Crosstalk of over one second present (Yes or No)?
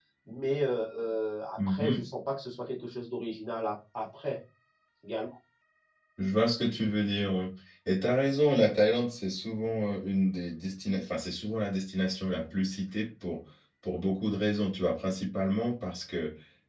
No